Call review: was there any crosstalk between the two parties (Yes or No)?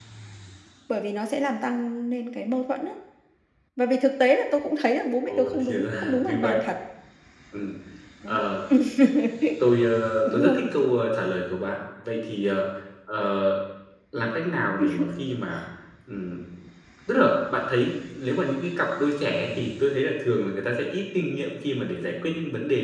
Yes